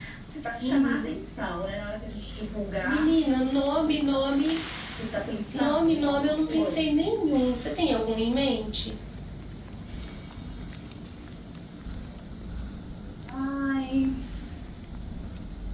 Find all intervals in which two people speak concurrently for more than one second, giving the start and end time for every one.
5.5-7.0

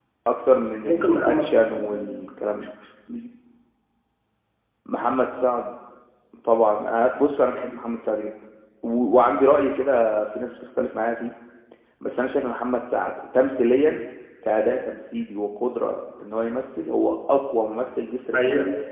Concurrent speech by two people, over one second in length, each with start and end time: 0.8-2.1

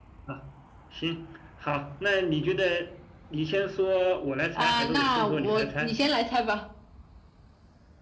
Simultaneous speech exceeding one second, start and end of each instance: 4.6-5.9

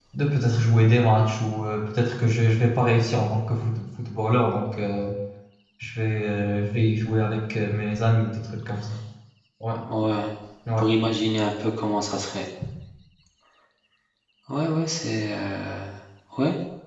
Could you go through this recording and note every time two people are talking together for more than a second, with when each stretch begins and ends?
none

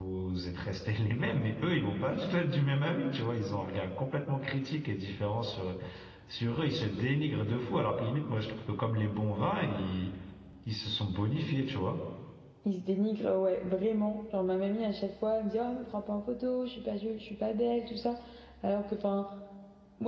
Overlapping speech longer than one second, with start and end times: none

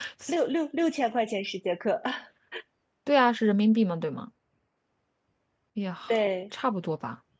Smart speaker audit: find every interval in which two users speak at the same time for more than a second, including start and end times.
none

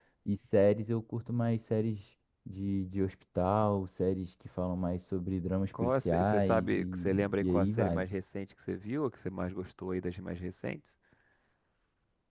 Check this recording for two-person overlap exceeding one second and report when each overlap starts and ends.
5.8-8.1

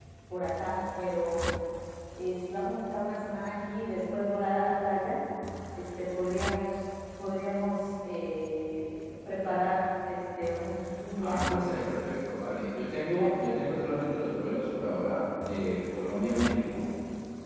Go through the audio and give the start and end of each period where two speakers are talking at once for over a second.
none

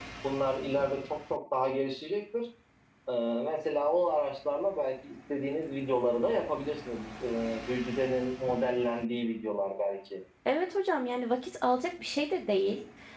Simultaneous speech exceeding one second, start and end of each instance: none

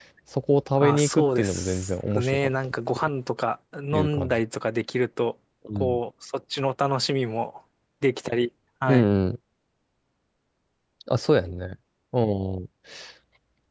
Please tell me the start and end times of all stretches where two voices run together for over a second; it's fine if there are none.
0.8-3.1

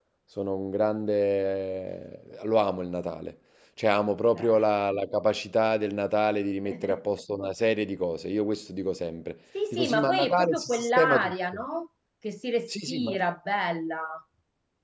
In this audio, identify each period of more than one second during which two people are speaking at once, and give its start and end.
9.7-11.6

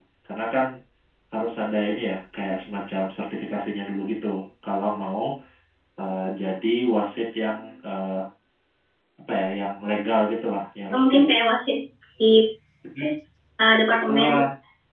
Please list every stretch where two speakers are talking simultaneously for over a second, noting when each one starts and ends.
none

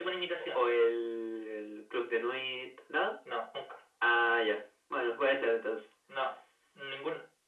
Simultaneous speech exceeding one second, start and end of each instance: none

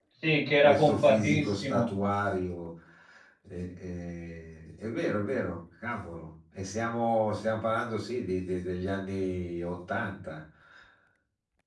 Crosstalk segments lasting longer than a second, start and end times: 0.6-1.8

